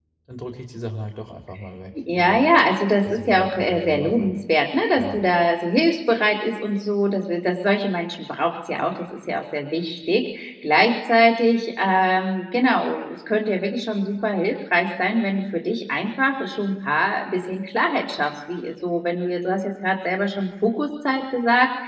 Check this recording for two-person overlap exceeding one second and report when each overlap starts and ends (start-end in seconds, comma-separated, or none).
3.0-4.3